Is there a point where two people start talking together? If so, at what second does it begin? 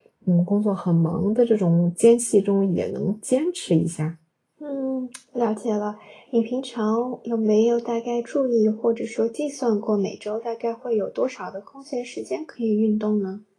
none

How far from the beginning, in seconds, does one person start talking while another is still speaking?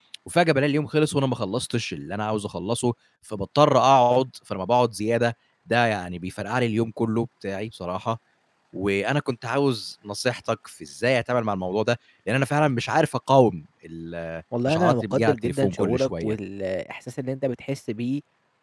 14.5 s

